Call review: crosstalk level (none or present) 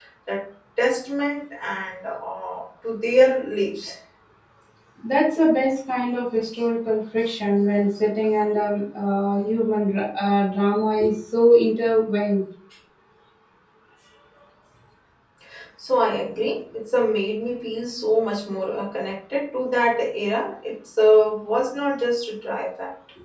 none